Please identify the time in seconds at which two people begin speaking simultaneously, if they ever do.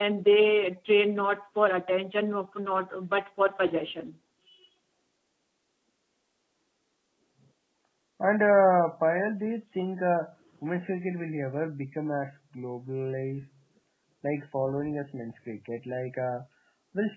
none

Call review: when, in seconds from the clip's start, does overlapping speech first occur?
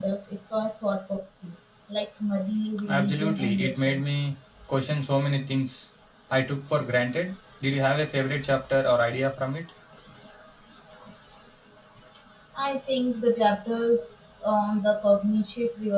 2.9 s

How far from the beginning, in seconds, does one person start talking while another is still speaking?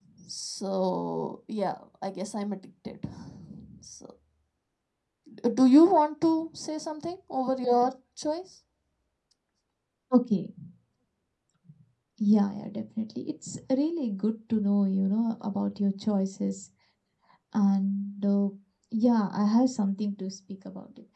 none

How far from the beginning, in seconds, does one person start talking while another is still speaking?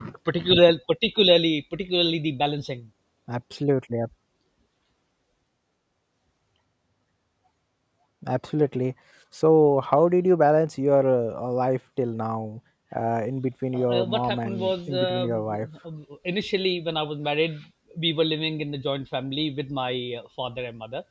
13.7 s

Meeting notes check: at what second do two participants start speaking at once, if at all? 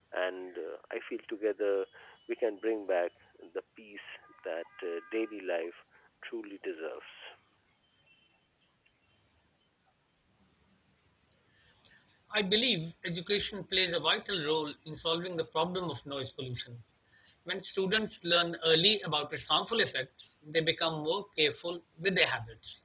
none

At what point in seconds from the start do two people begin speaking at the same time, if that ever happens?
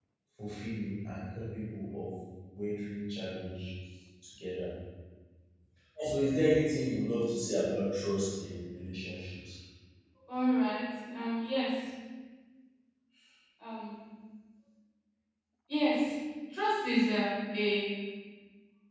none

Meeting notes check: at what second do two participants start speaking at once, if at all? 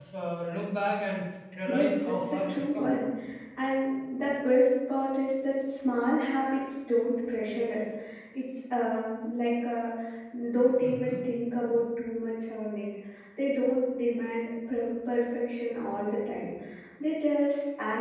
1.7 s

